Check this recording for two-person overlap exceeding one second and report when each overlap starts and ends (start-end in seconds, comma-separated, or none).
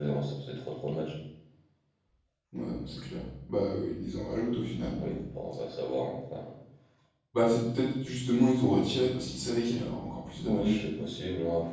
none